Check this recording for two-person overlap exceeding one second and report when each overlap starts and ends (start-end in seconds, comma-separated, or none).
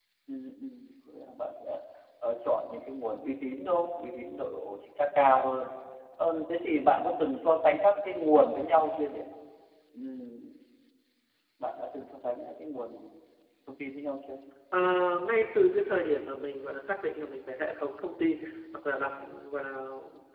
none